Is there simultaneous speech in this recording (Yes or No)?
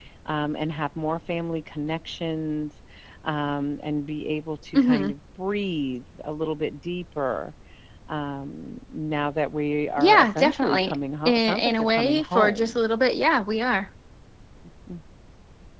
Yes